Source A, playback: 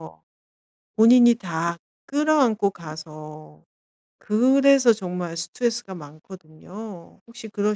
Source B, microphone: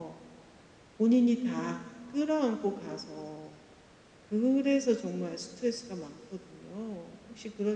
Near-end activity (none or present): none